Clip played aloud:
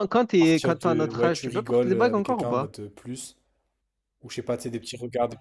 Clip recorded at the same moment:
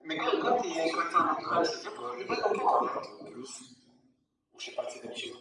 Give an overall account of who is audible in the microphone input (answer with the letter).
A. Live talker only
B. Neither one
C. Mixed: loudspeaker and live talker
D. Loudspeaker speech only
D